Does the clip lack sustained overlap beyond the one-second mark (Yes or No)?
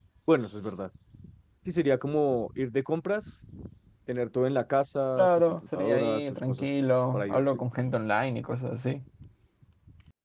No